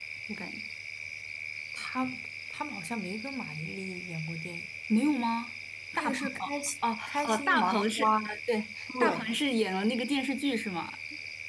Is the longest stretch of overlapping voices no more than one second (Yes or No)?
No